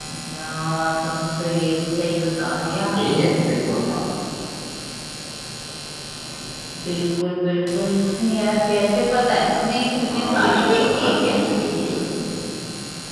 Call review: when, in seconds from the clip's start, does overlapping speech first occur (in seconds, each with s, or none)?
10.1 s